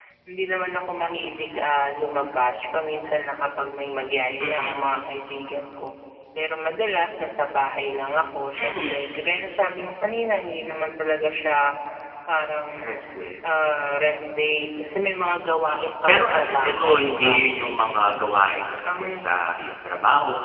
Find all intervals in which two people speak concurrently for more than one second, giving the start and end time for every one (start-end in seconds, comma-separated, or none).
15.8-17.4